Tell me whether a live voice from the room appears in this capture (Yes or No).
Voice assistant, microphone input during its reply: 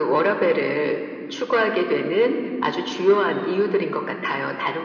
No